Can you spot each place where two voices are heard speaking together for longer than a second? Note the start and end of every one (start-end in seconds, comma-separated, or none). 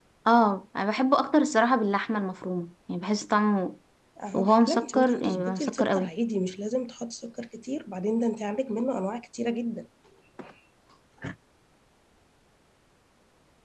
4.3-6.1